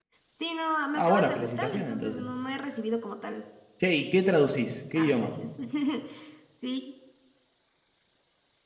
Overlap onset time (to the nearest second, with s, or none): 1 s